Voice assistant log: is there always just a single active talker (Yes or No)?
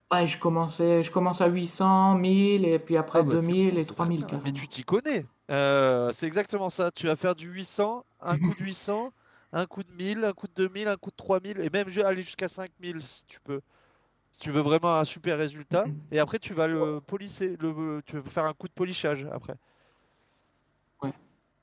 No